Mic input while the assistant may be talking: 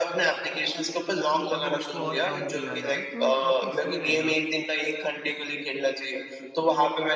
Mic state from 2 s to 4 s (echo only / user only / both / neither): both